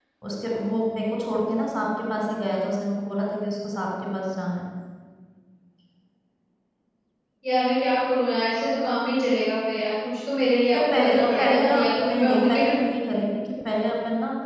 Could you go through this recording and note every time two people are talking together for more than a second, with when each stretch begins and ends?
10.7-12.8

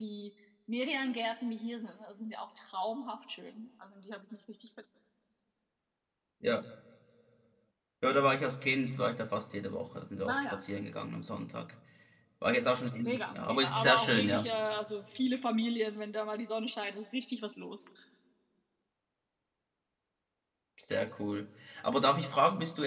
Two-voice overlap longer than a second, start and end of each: 13.0-14.5

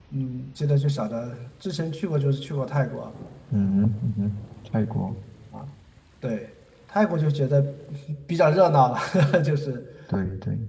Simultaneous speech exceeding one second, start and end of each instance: none

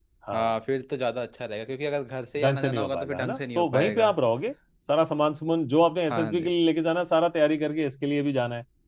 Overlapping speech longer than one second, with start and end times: 2.4-4.1

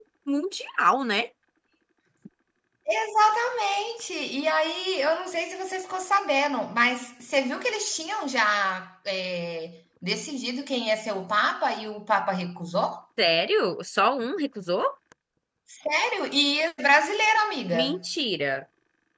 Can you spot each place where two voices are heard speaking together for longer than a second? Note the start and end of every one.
none

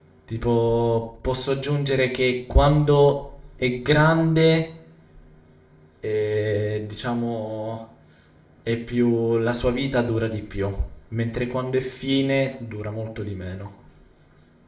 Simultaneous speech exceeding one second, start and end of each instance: none

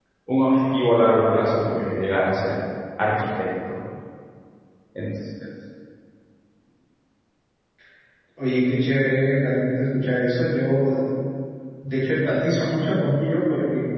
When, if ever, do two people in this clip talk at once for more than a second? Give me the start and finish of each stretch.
none

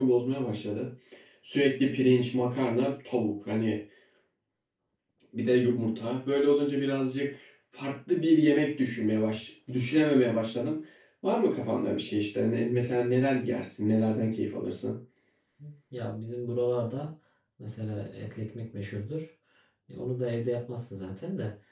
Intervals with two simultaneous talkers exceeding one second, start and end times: none

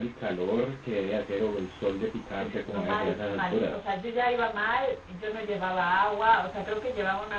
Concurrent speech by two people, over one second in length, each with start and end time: 2.4-3.9

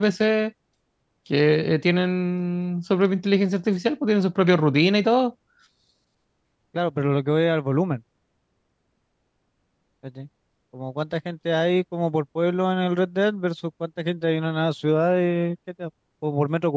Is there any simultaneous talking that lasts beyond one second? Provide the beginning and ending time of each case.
none

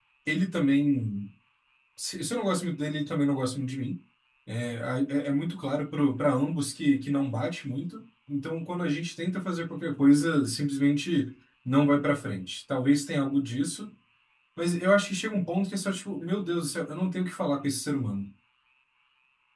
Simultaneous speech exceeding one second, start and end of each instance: none

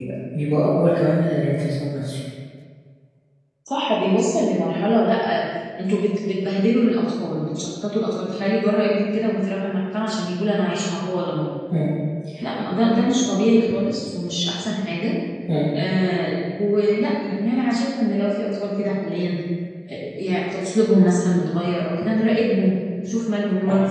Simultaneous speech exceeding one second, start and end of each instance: none

